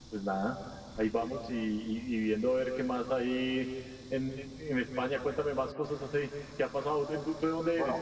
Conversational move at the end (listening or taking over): taking over